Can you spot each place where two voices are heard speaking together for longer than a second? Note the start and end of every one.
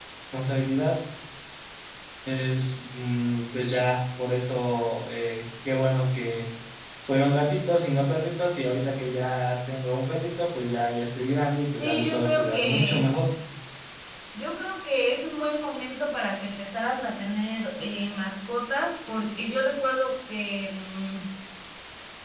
11.8-13.1

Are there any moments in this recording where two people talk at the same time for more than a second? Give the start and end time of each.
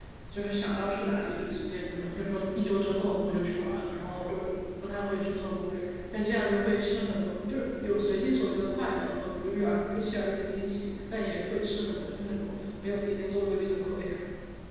none

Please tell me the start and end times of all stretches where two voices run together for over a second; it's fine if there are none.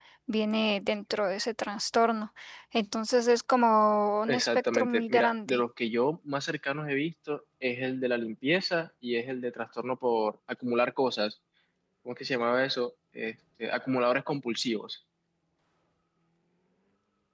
4.3-5.6

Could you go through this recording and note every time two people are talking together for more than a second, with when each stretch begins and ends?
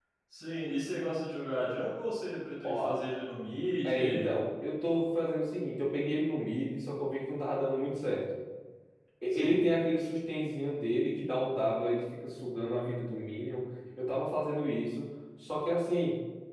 none

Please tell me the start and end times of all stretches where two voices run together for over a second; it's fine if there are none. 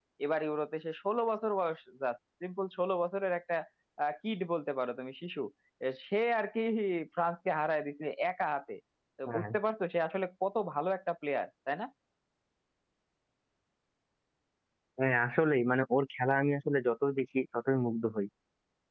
none

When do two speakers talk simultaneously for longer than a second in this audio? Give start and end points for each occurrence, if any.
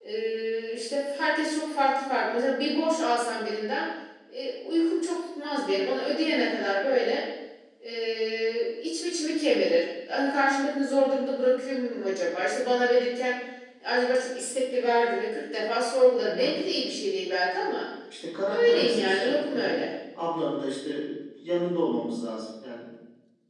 18.5-19.8

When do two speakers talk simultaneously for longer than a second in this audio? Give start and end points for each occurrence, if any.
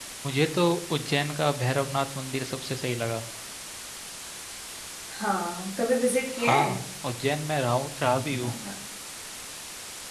none

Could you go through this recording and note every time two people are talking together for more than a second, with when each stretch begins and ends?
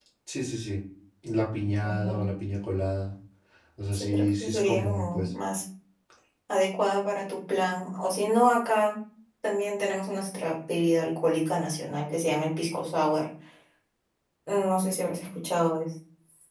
3.9-5.3

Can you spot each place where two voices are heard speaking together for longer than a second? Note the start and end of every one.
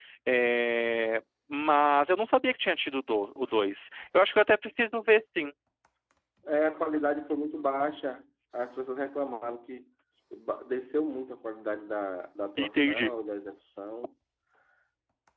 none

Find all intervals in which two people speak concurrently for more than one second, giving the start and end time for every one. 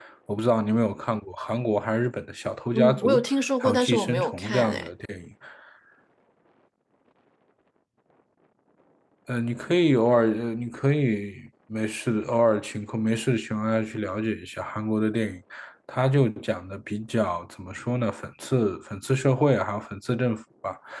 3.6-4.9

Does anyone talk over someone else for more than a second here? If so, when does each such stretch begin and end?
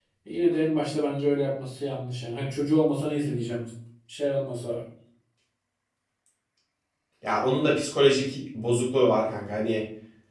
none

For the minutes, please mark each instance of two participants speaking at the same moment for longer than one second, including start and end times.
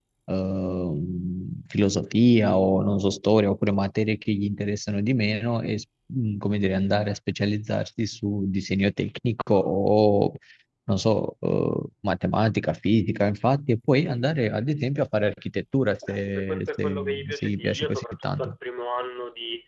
16.1-18.5

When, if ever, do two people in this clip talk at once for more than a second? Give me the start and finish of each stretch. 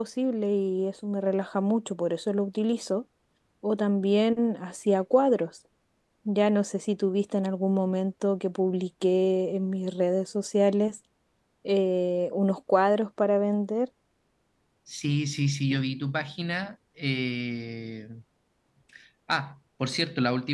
none

